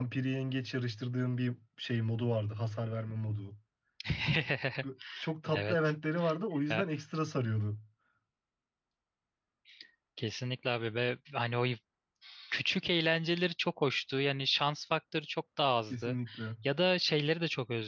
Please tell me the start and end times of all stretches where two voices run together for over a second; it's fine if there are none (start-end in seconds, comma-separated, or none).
none